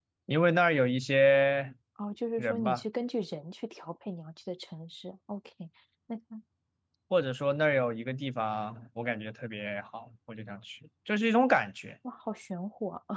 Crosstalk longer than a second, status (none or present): none